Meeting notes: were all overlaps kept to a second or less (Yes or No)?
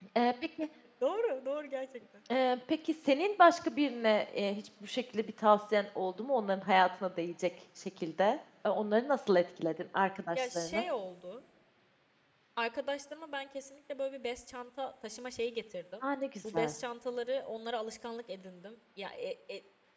Yes